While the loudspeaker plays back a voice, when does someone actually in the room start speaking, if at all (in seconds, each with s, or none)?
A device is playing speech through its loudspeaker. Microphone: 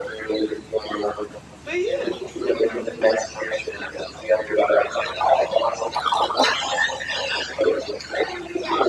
1.6 s